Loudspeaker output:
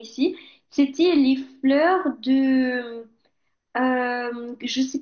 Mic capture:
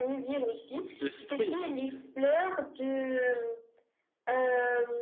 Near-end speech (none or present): present